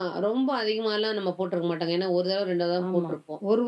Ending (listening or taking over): taking over